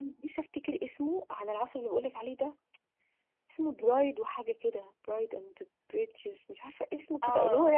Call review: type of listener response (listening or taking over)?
taking over